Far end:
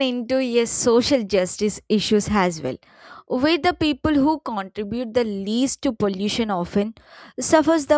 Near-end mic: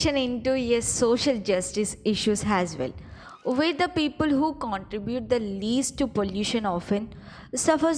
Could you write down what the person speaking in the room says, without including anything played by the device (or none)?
none